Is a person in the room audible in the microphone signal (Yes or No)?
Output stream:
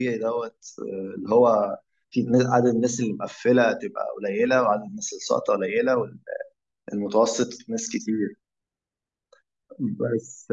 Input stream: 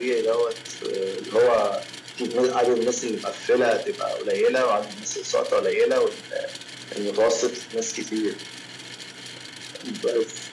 No